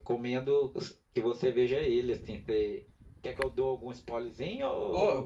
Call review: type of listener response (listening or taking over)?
taking over